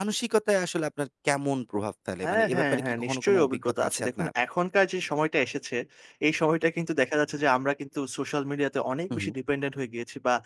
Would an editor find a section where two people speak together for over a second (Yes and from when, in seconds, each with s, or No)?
Yes, from 2.2 s